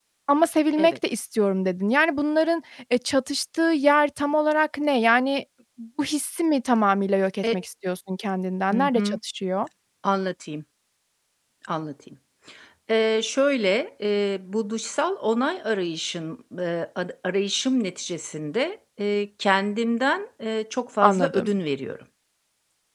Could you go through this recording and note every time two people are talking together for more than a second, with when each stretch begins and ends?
none

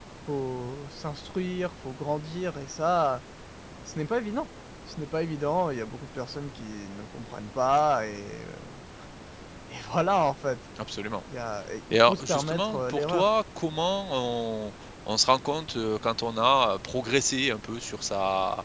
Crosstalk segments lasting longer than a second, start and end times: 11.9-13.3

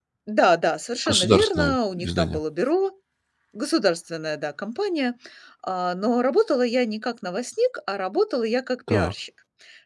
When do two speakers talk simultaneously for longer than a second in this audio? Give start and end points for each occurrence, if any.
1.1-2.4

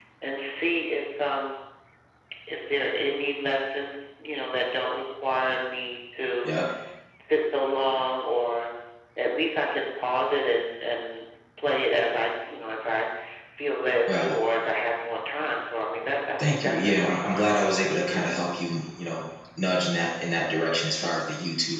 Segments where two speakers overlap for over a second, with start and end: 16.4-18.3

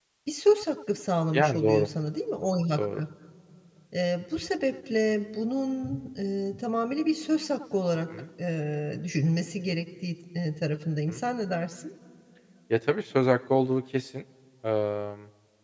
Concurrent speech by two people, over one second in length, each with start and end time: none

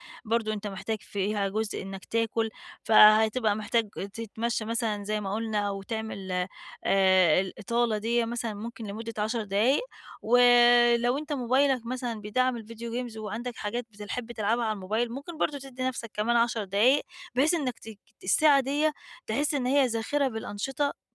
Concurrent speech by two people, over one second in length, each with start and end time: none

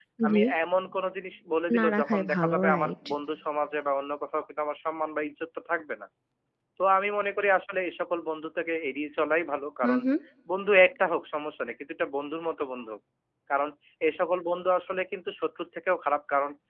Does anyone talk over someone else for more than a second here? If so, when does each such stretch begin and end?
1.8-3.0

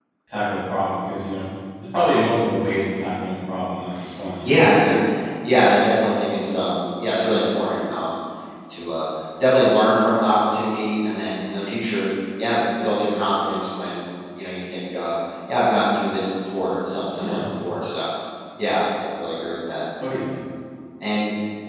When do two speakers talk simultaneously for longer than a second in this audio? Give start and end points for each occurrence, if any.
none

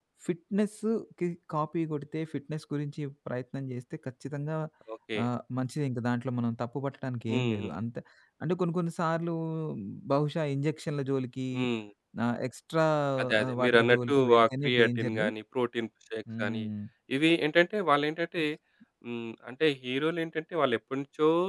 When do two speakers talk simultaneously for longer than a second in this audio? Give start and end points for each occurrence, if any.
13.4-15.2

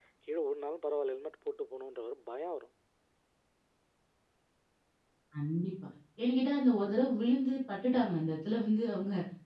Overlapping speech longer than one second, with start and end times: none

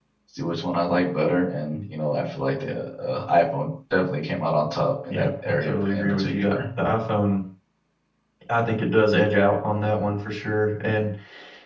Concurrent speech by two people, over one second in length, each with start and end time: 5.1-6.6

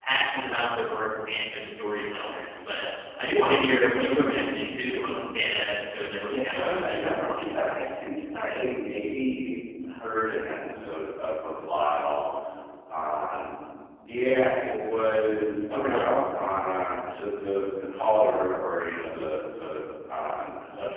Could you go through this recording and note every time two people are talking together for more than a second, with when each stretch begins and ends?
6.3-7.9

